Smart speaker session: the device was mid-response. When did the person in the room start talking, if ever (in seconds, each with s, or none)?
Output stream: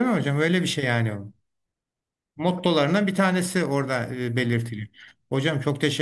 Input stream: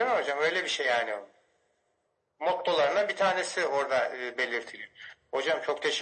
none